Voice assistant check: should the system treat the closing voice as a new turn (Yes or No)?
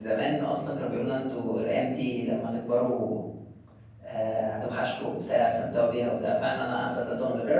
Yes